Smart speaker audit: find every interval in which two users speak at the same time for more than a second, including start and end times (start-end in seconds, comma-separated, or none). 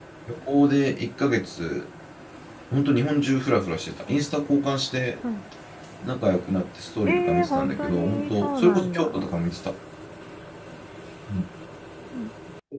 7.1-9.1